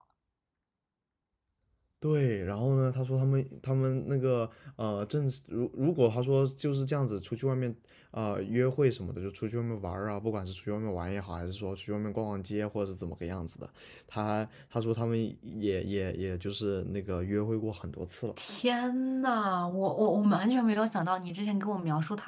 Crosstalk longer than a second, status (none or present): none